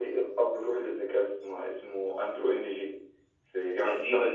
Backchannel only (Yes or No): No